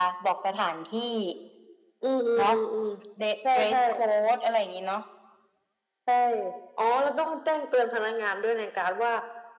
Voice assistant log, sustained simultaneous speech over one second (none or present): none